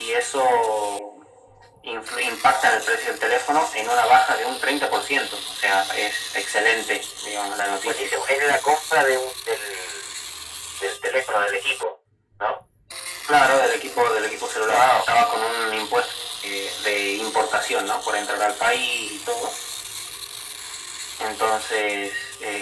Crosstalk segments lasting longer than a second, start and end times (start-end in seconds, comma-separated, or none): none